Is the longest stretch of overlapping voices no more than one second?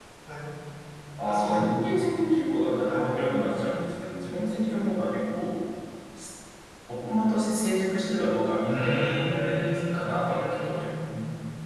No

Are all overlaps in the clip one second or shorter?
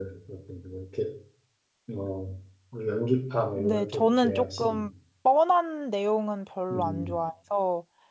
No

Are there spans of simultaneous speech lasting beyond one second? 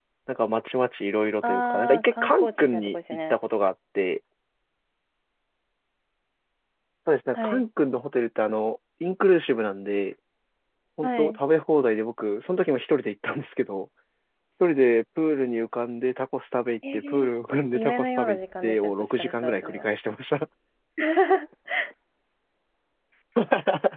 Yes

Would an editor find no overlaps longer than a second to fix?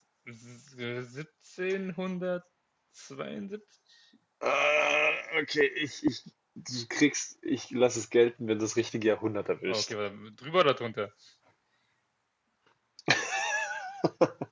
Yes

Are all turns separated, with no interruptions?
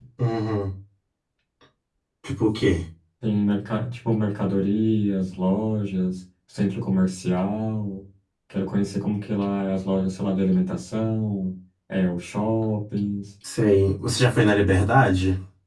Yes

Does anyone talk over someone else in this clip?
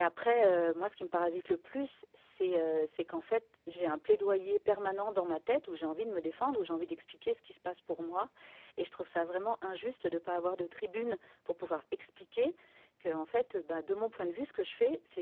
No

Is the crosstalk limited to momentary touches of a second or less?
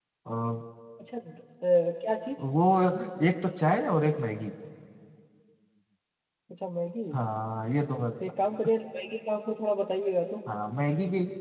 Yes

